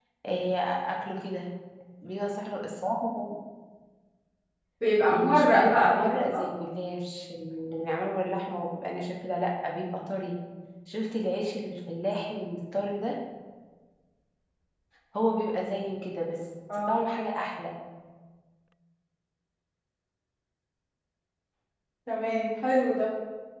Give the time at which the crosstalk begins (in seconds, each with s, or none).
5.1 s